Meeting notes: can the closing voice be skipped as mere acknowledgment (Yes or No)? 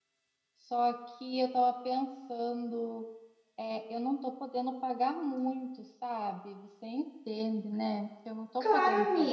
No